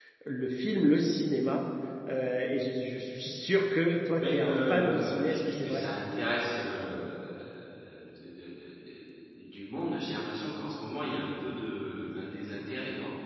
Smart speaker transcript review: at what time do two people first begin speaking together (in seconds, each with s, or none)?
4.2 s